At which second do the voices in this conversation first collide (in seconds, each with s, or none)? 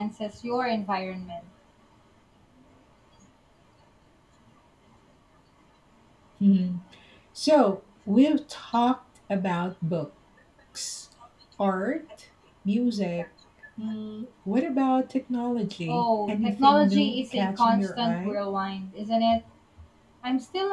15.9 s